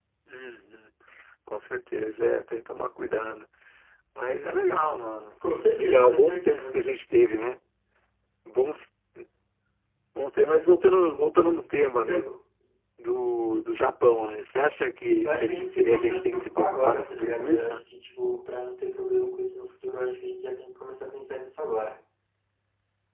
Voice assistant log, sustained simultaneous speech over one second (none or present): present